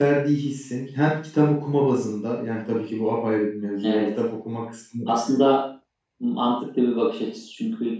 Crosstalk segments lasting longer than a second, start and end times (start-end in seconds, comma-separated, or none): none